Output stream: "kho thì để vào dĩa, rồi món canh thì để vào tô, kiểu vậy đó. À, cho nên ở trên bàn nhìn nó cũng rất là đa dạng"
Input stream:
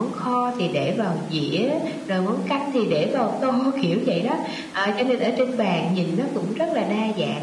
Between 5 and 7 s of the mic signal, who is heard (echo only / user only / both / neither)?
echo only